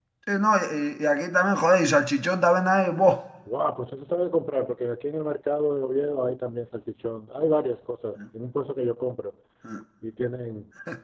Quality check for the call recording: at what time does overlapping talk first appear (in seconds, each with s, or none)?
none